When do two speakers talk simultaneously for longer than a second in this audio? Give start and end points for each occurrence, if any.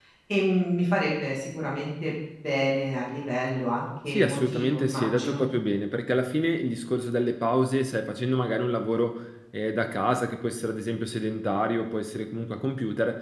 4.1-5.4

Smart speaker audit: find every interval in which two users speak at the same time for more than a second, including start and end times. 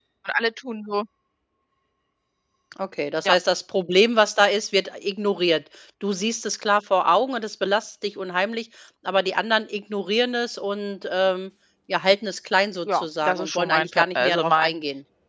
12.9-14.7

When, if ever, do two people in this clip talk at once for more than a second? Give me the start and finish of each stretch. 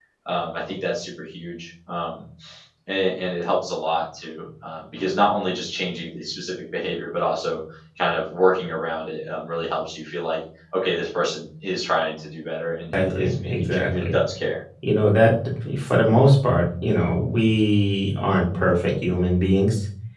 12.9-14.2

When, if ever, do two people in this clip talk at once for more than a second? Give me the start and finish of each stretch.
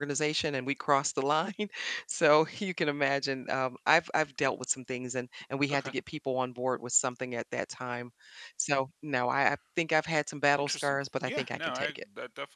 10.6-11.9

